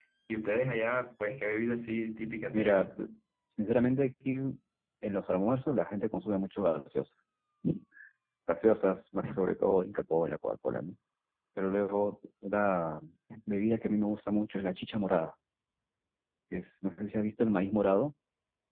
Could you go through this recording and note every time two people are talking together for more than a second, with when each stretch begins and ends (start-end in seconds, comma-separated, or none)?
none